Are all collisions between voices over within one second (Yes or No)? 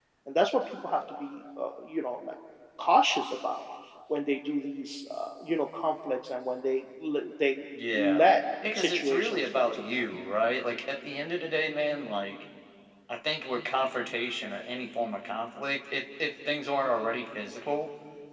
No